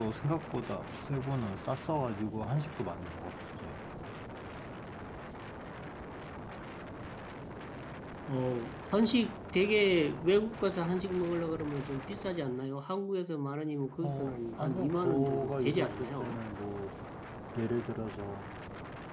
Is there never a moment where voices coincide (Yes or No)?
No